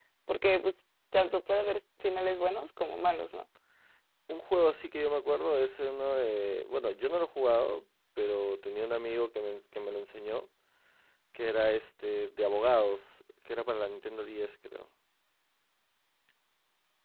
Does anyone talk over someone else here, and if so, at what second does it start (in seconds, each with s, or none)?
none